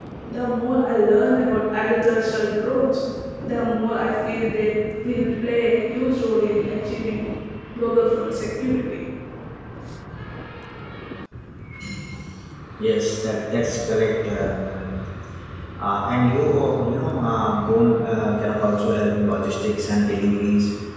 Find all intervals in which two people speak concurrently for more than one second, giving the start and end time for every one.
none

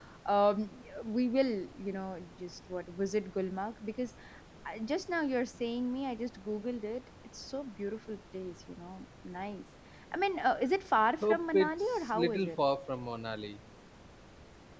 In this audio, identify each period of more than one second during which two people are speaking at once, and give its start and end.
11.2-12.5

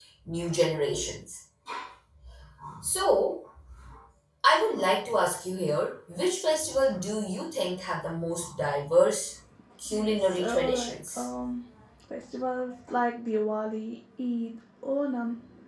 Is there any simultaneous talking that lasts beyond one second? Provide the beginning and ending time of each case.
9.9-11.3

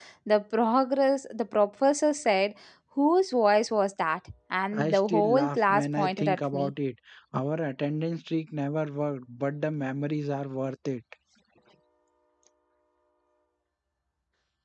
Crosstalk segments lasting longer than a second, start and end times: 4.8-6.7

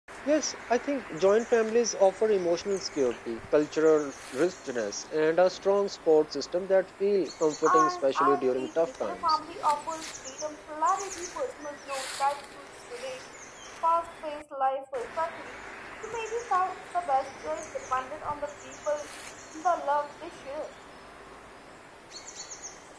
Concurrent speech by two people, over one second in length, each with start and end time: 7.6-9.4

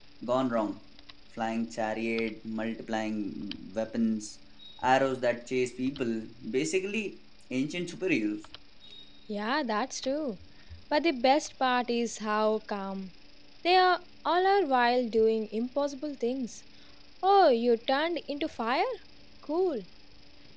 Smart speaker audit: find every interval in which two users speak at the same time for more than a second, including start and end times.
none

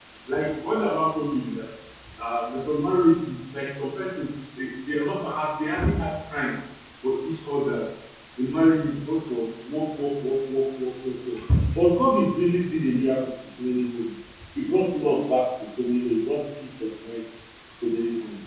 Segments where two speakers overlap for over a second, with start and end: none

